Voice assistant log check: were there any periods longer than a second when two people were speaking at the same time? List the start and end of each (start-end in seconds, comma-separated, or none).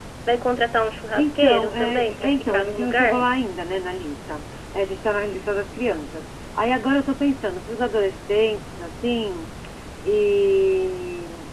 1.2-3.3